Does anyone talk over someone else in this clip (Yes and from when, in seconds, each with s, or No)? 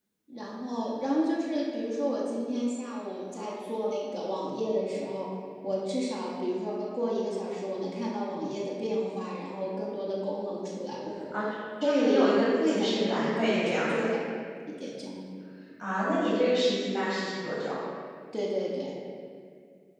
Yes, from 11.8 s